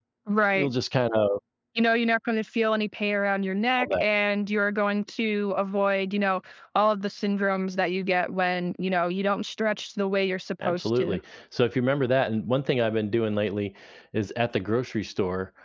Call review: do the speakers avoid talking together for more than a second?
Yes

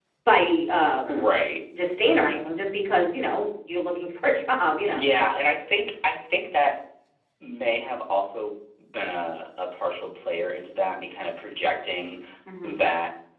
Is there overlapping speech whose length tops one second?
No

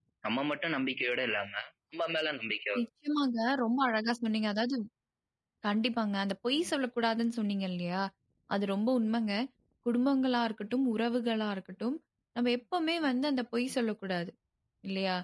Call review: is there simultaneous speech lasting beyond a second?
No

